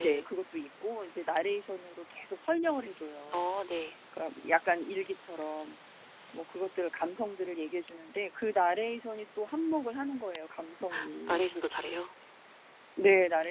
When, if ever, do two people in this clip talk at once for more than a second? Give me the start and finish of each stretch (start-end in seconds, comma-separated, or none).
none